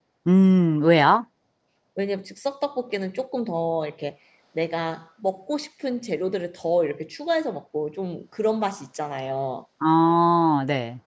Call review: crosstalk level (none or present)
none